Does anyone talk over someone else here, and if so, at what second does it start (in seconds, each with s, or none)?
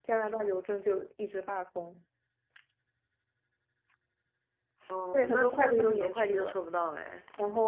5.1 s